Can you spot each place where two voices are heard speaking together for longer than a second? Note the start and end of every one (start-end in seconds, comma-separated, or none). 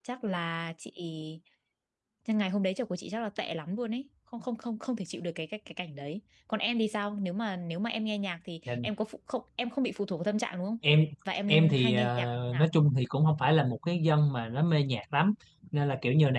11.5-12.7